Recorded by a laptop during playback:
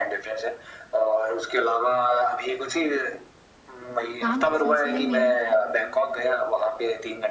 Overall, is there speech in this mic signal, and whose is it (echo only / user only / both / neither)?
both